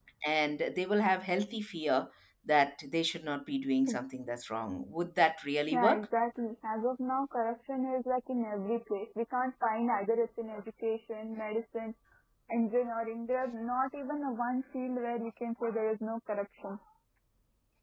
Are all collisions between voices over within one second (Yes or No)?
Yes